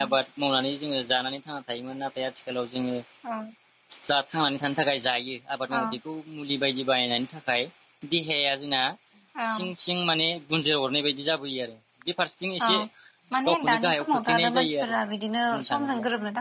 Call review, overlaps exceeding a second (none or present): present